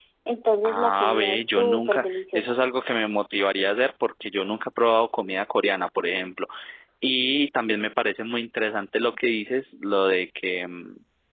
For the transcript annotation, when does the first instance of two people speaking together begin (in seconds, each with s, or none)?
0.6 s